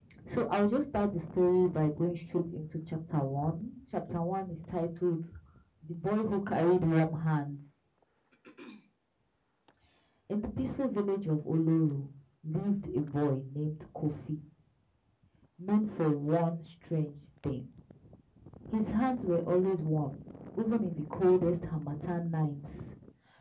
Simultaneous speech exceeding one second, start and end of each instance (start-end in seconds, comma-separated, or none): none